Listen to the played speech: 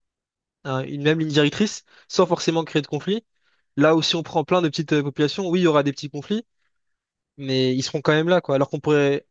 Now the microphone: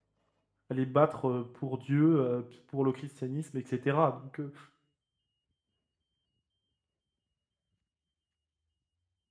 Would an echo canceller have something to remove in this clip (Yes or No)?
No